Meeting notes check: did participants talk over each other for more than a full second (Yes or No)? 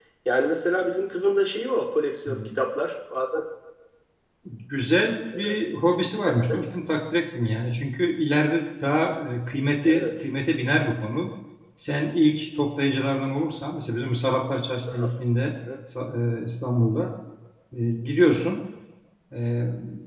No